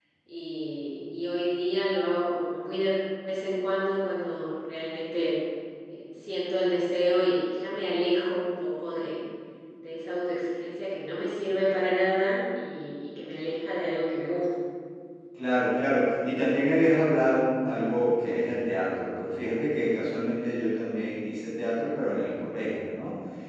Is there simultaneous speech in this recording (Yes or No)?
No